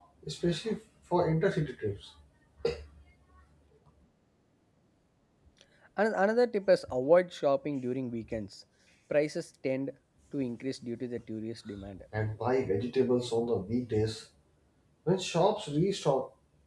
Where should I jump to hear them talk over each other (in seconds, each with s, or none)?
none